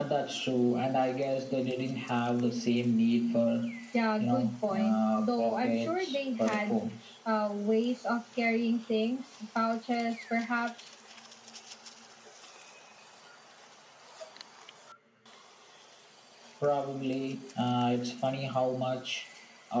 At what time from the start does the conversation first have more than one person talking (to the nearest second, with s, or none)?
4 s